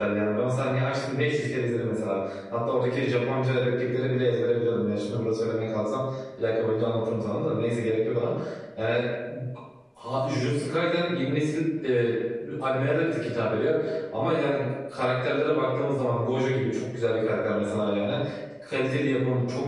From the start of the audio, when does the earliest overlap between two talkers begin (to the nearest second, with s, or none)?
none